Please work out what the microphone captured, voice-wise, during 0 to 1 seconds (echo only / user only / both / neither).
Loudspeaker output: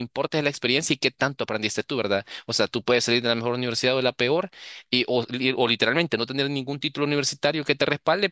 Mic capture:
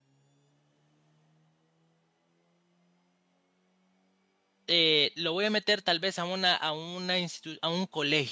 neither